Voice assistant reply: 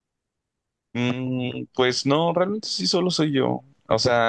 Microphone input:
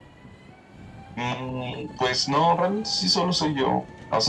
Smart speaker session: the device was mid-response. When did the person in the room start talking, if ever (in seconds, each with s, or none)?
none